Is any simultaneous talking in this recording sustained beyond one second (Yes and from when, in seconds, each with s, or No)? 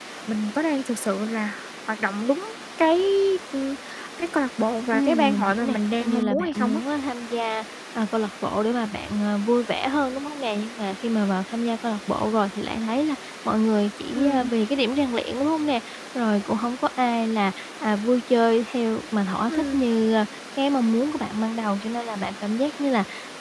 Yes, from 4.9 s